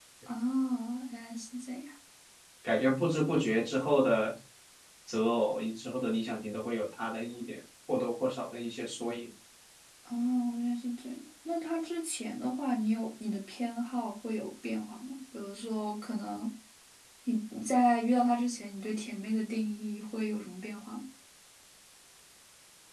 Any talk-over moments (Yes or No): No